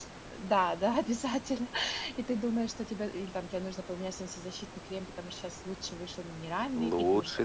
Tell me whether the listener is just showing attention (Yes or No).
No